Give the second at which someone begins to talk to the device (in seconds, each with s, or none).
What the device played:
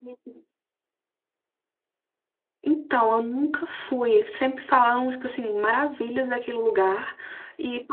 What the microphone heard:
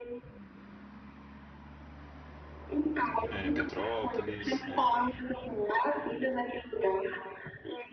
3.3 s